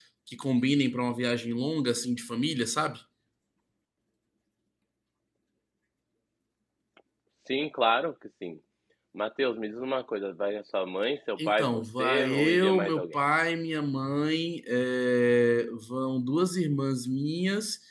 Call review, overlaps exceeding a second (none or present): present